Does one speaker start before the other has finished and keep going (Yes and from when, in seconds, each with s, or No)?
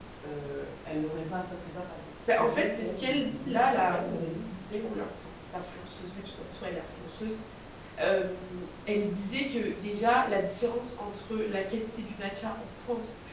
Yes, from 2.3 s